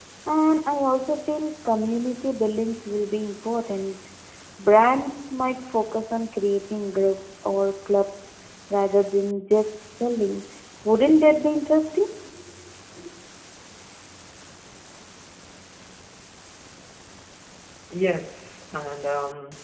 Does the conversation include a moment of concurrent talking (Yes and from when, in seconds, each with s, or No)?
No